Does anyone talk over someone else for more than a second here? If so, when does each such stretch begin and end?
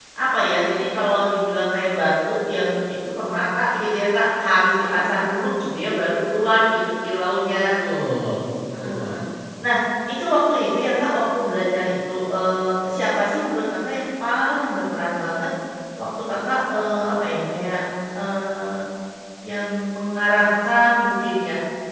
none

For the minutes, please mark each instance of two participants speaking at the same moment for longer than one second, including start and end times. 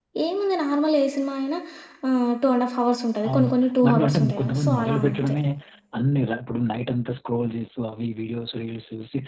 3.8-5.3

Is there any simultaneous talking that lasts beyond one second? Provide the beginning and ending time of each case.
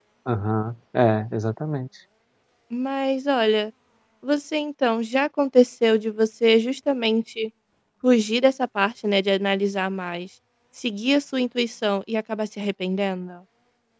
none

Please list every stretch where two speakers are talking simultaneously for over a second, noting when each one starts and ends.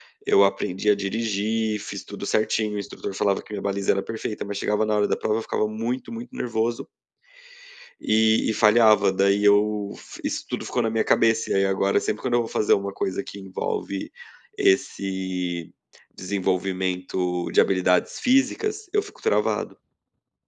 none

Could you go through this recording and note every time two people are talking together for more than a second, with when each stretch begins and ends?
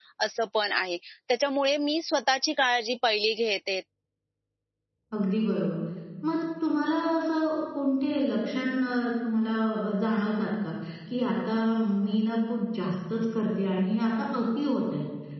none

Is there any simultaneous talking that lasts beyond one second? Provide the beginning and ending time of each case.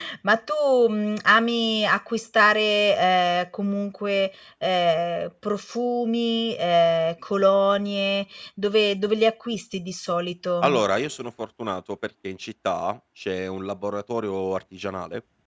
none

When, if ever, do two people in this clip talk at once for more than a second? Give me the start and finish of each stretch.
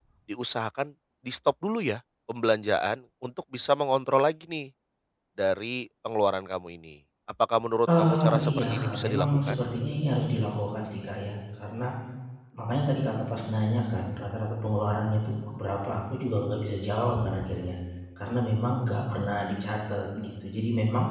8.0-9.6

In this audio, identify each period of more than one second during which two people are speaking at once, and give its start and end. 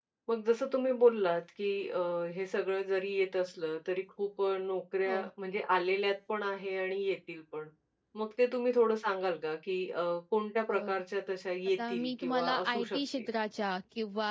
11.8-13.3

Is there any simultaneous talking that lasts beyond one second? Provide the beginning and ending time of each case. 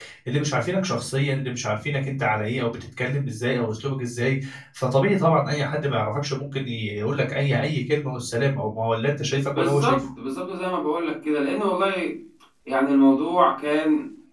none

